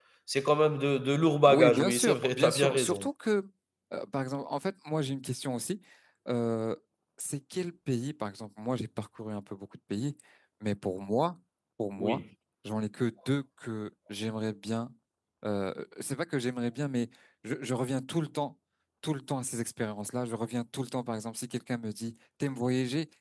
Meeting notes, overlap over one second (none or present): present